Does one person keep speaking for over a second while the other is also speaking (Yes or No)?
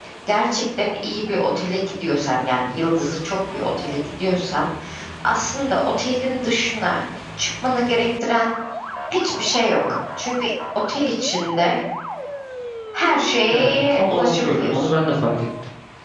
Yes